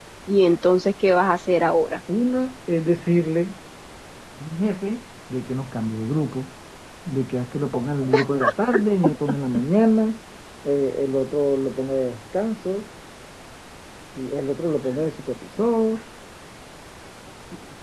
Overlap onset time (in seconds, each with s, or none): none